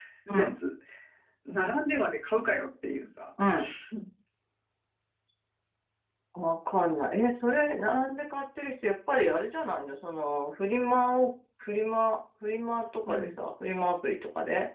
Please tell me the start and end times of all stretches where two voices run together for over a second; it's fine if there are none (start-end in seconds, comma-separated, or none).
none